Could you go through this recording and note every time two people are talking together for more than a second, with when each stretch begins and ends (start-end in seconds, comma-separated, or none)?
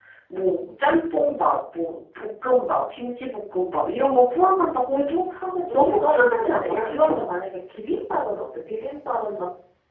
5.7-7.1